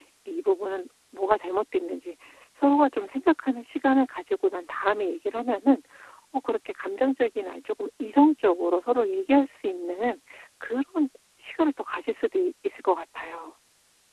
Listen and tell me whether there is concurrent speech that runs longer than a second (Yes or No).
No